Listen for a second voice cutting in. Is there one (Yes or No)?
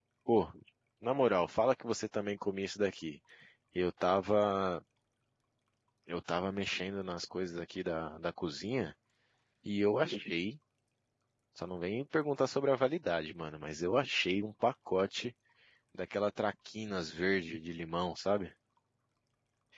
No